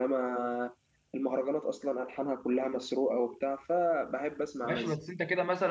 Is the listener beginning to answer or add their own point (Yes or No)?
Yes